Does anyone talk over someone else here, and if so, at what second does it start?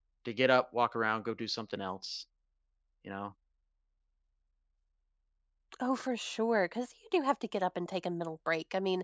none

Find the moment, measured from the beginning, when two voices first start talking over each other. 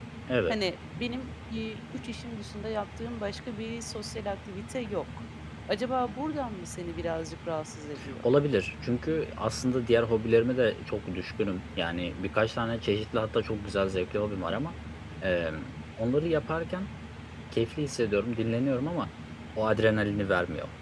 none

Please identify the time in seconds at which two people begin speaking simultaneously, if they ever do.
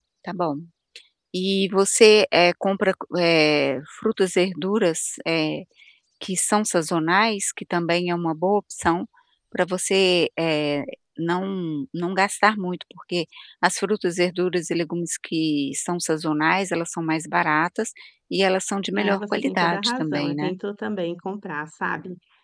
18.9 s

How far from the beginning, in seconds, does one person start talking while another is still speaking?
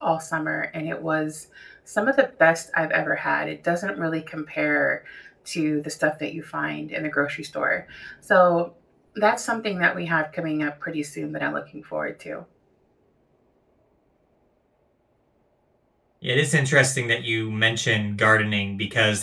none

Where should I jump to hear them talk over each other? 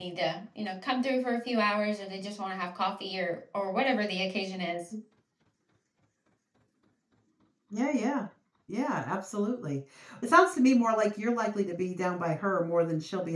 none

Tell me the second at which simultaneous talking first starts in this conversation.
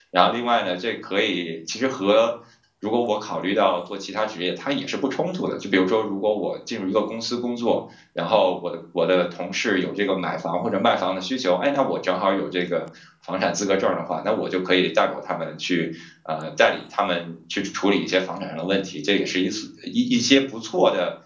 none

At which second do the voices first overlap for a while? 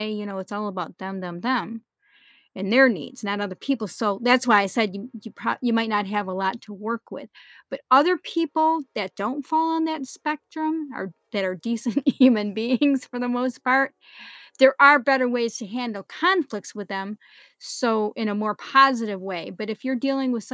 none

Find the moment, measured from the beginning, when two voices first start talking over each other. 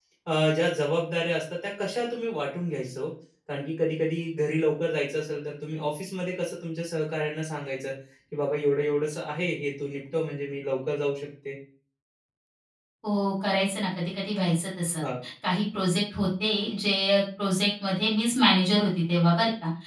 none

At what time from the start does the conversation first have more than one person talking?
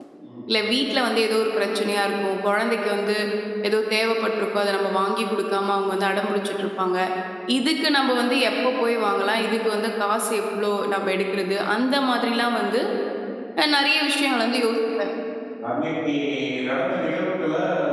none

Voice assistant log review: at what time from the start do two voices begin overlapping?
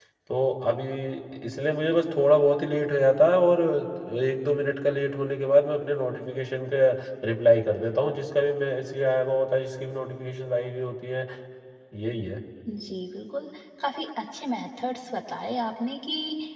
none

